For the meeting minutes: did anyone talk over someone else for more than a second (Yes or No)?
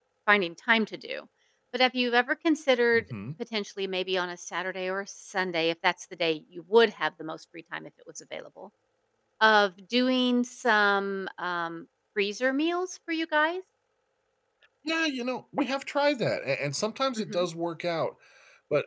No